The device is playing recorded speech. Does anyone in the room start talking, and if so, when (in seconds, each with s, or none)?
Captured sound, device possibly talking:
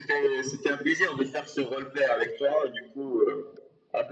none